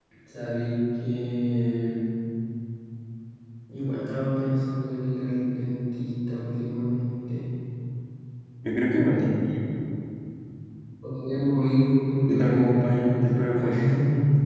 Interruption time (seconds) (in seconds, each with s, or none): 12.3 s